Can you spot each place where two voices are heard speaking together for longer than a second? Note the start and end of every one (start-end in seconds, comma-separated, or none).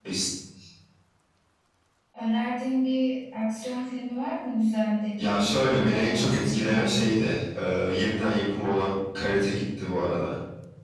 5.2-7.1